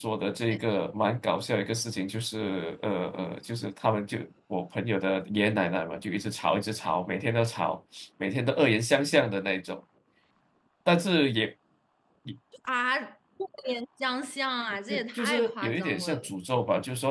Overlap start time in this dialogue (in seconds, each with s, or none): 14.9 s